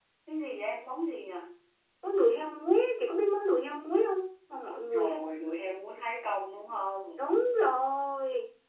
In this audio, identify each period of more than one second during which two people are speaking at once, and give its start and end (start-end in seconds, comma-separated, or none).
none